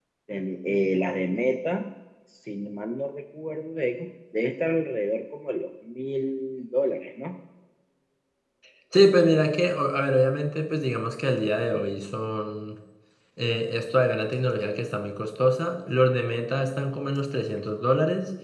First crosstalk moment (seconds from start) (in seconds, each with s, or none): none